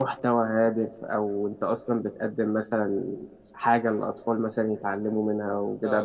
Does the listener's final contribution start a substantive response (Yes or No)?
No